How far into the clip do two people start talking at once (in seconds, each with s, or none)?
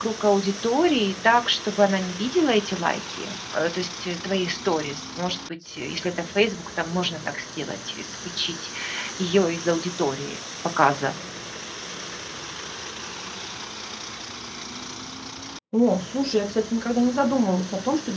none